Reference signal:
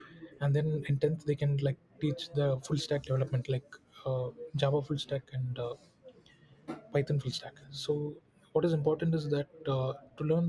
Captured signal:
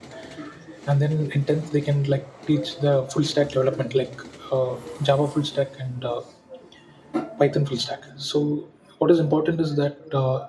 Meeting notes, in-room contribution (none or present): none